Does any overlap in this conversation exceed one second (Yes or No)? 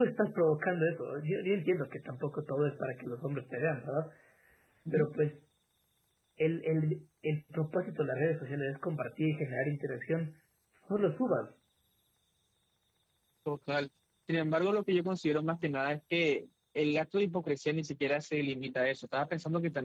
No